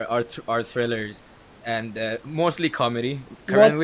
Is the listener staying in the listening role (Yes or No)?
Yes